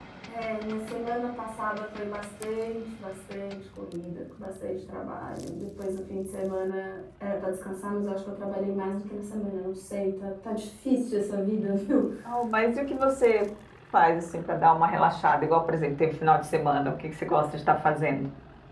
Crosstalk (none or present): none